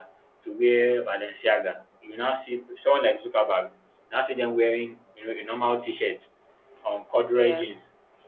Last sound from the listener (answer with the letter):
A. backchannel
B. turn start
A